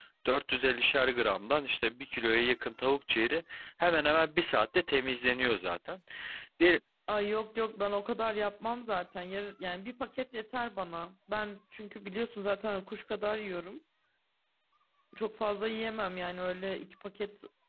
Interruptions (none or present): none